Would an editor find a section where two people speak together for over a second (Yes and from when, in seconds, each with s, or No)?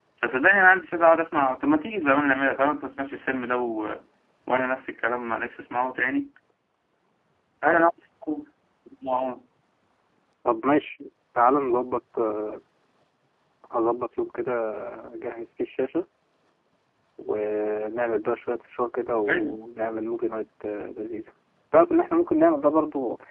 No